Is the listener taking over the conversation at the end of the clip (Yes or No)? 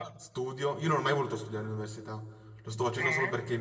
No